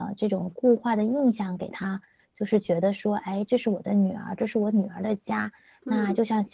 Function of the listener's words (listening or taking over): listening